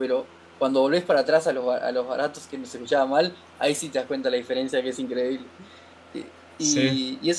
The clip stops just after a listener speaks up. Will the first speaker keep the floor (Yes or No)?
Yes